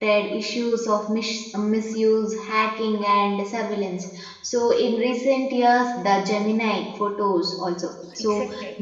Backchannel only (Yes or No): No